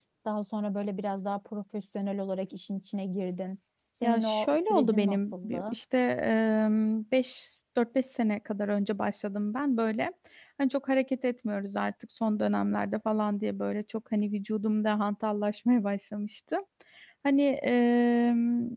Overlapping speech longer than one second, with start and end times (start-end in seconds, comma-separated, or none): 4.0-5.8